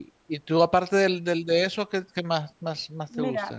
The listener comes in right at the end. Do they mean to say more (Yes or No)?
Yes